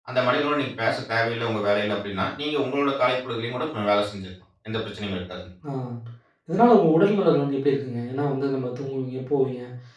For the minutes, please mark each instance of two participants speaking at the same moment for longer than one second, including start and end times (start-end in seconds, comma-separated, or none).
none